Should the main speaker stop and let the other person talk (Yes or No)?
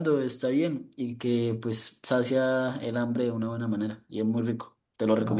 Yes